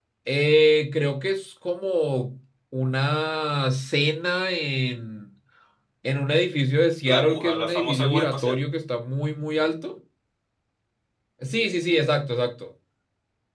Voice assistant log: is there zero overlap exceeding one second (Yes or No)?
No